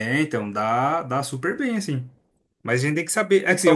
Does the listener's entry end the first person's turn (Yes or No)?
No